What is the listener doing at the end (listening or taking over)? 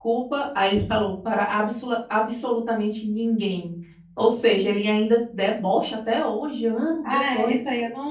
taking over